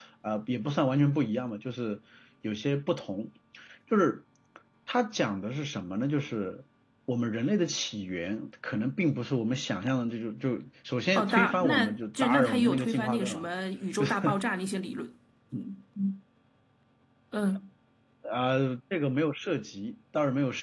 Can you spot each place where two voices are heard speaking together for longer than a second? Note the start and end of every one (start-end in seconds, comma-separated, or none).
11.1-13.5